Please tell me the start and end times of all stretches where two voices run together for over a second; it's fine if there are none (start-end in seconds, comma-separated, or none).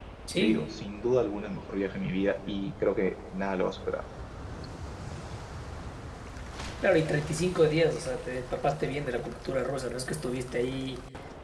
none